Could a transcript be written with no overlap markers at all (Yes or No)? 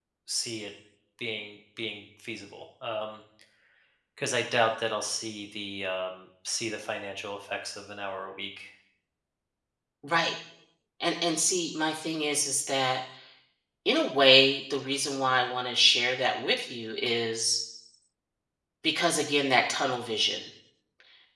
Yes